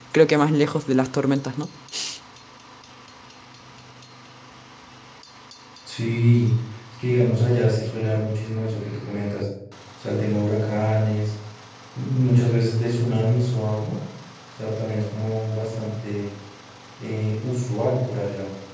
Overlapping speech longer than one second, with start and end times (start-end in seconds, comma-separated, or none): none